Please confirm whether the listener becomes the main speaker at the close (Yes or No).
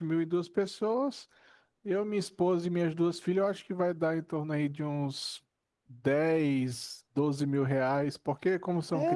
Yes